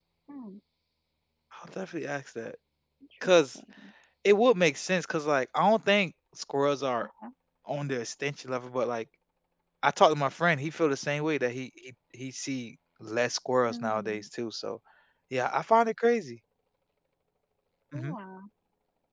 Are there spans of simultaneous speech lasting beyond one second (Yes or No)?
No